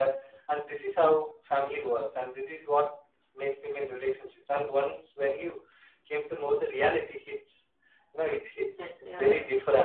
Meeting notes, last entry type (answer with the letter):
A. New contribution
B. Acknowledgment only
B